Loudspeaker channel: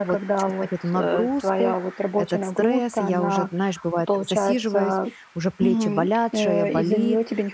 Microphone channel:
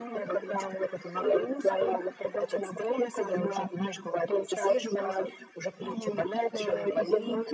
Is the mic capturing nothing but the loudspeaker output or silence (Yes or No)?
Yes